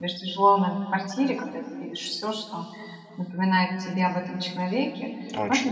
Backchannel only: Yes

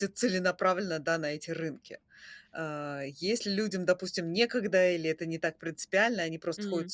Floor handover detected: No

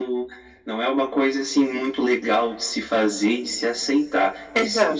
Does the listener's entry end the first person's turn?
No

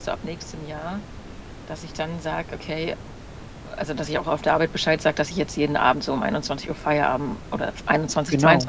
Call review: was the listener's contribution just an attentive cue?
Yes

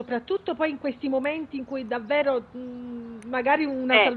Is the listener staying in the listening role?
Yes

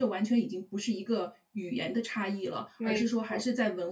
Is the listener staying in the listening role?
Yes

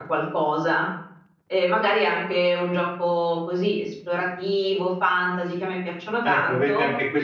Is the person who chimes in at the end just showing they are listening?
No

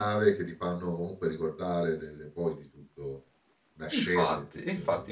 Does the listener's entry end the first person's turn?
Yes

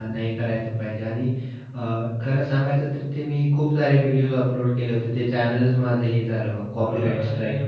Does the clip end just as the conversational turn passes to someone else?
Yes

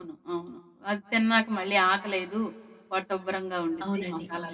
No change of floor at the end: No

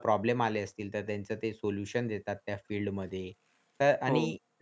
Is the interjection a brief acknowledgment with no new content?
Yes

